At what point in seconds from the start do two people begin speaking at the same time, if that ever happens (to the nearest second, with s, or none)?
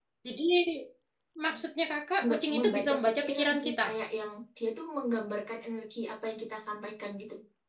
2 s